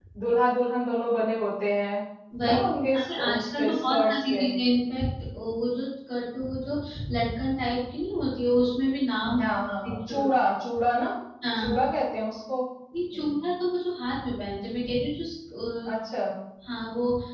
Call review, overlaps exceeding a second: present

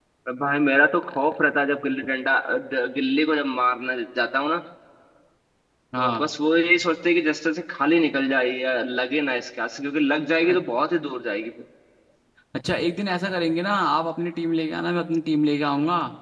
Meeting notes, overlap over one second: none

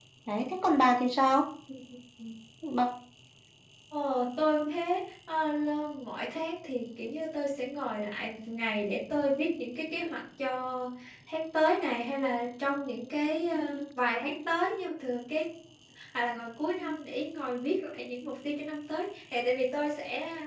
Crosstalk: none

